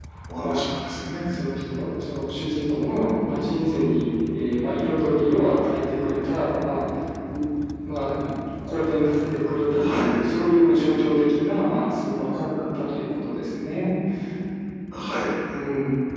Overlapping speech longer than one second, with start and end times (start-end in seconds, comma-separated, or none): none